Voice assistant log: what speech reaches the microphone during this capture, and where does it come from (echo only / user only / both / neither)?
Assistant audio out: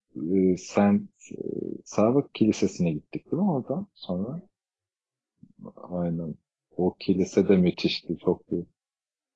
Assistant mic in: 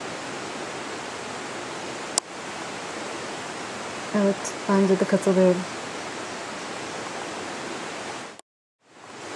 user only